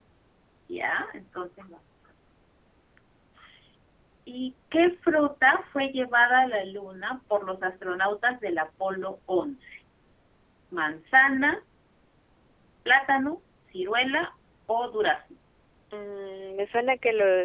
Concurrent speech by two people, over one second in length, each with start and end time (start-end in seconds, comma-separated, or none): none